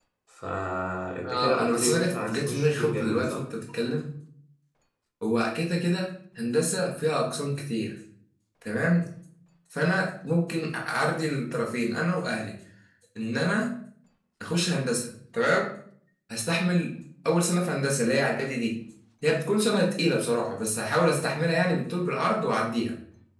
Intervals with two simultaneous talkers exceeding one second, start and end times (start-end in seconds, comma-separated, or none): 1.2-3.4